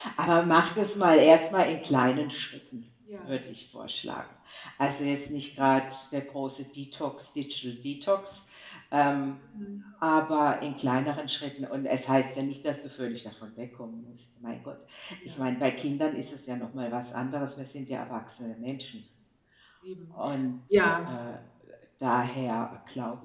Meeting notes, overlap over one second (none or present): none